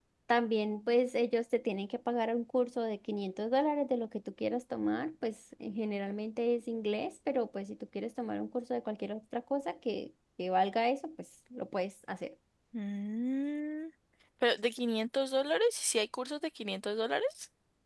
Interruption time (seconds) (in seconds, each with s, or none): none